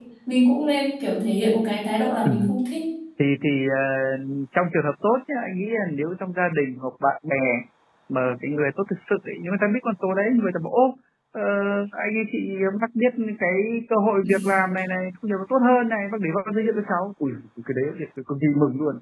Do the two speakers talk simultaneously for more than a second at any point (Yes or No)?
No